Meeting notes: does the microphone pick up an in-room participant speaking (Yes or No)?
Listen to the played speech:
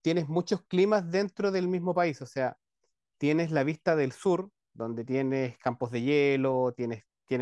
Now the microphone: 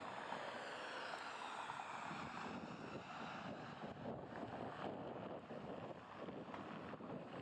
No